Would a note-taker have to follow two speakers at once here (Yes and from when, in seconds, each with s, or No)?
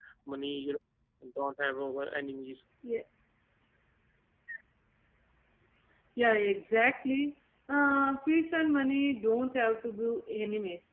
No